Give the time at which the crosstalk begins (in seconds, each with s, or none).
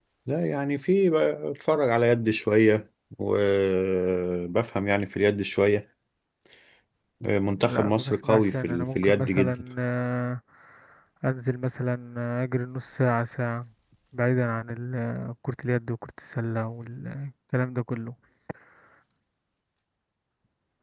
7.6 s